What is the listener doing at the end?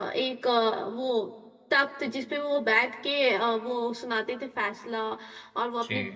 listening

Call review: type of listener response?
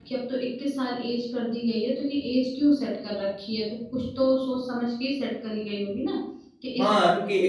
taking over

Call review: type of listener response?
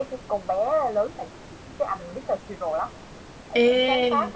listening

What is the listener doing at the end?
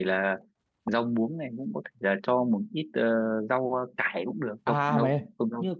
taking over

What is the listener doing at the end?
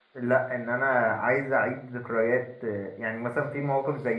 listening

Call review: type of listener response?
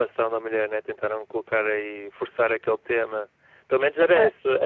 listening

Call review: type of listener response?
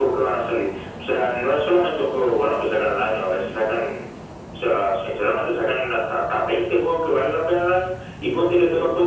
listening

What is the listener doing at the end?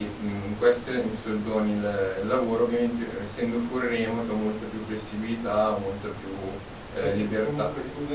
taking over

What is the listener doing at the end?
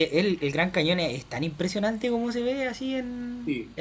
taking over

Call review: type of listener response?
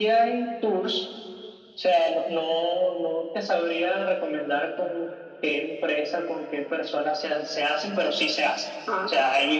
listening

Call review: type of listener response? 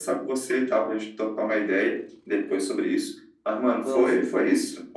listening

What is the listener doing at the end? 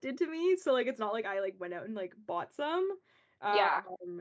listening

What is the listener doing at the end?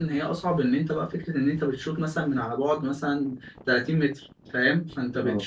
listening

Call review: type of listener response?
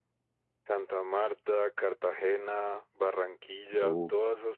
listening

